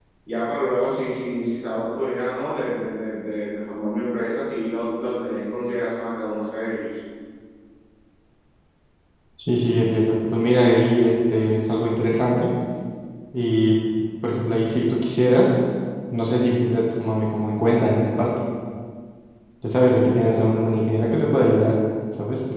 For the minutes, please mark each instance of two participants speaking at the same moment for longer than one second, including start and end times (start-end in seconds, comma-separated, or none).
none